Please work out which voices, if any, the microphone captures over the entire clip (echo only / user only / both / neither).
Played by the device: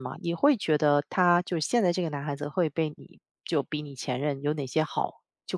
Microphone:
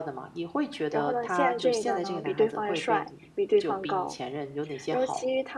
both